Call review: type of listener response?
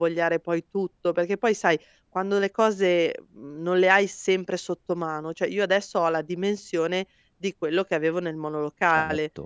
listening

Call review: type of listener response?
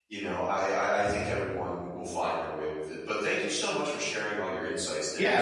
taking over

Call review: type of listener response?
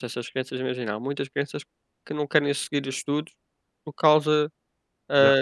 listening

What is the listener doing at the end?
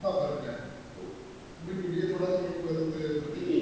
taking over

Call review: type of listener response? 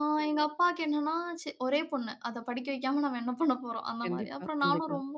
listening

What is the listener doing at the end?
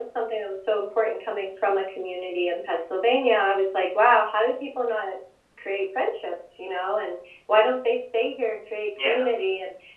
listening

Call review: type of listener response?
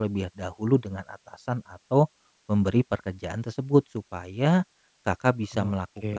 listening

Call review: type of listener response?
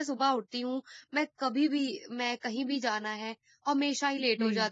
listening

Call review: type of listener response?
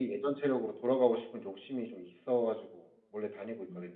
taking over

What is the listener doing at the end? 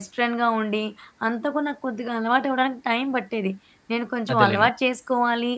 listening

